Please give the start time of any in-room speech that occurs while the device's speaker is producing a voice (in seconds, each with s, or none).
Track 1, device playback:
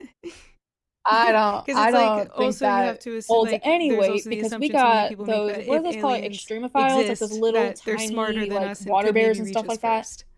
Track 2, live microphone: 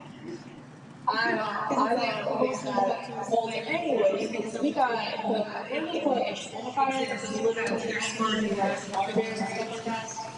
none